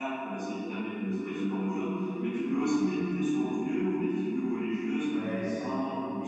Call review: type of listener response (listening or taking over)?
taking over